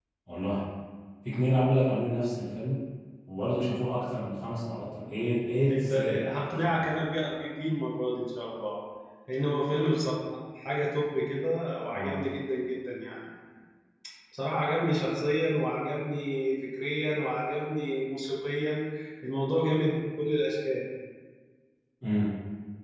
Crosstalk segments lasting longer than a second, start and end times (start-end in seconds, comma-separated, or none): 5.7-7.2